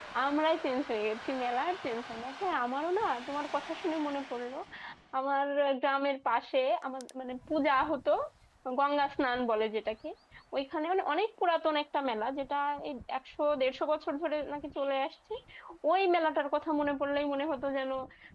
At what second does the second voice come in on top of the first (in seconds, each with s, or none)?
none